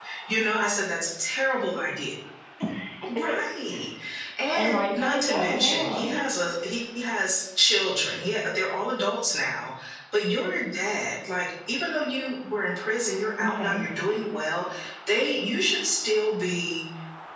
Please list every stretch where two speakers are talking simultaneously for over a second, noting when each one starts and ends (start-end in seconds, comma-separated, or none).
4.6-6.2